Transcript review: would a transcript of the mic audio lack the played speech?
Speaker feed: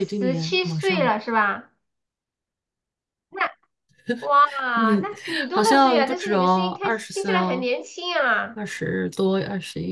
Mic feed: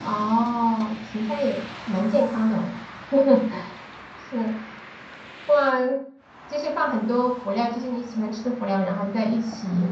Yes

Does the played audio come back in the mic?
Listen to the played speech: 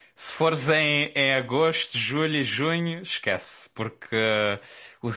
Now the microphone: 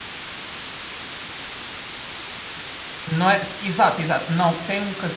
No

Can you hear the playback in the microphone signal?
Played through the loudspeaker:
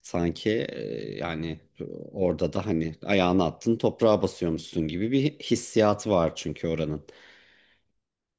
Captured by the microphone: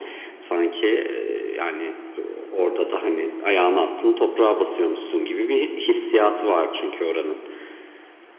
Yes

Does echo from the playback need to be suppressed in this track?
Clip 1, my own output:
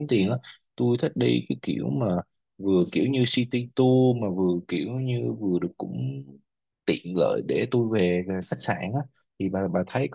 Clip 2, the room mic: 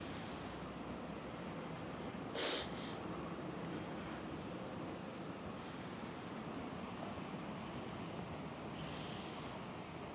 No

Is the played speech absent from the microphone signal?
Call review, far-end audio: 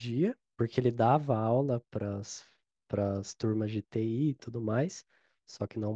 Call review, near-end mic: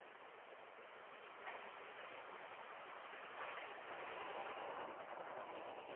Yes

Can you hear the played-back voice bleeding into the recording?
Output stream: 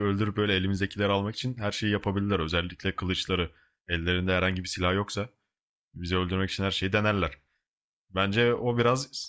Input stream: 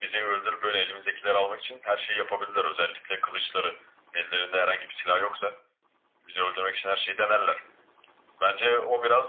Yes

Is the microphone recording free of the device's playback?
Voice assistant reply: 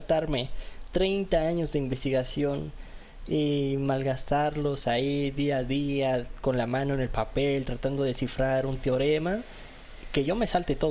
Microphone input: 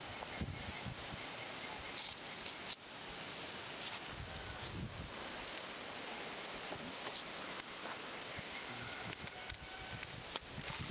Yes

